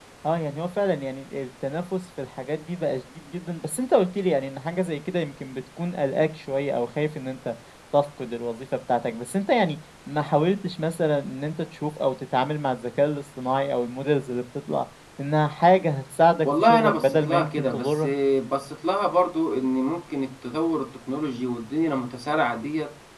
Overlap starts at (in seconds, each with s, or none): 16.4 s